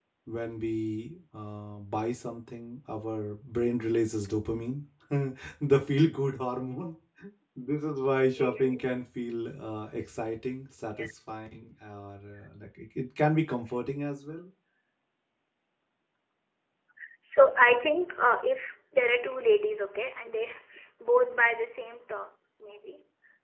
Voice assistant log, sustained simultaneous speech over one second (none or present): none